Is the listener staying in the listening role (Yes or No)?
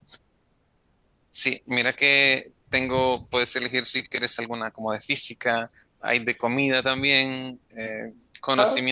Yes